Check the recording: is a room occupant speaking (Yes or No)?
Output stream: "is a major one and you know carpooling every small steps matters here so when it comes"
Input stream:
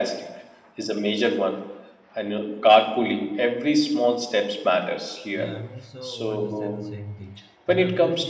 Yes